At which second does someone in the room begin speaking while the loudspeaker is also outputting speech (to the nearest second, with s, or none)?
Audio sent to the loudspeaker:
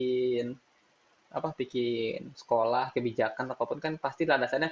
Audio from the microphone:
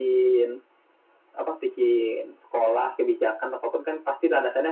none